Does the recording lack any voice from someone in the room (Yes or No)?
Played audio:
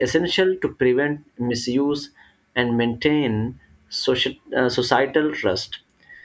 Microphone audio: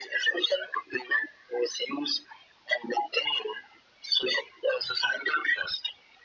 Yes